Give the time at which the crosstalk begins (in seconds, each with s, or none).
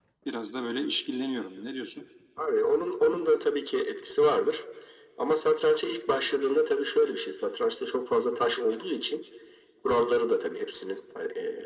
none